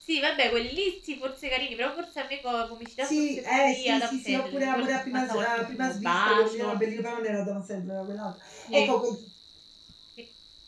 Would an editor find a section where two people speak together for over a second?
Yes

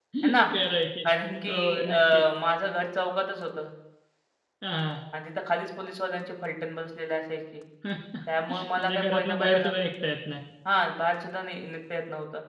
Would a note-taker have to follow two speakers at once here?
Yes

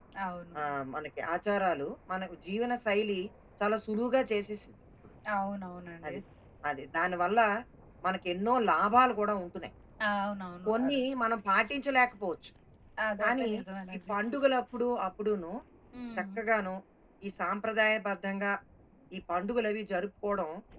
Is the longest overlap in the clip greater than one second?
No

